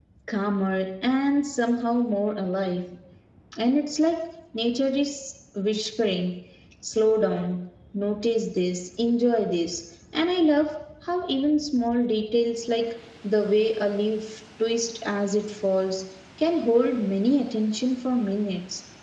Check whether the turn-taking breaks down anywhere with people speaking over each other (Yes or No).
No